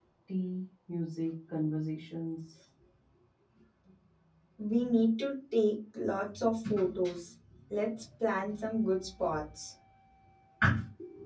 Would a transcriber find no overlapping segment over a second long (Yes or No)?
Yes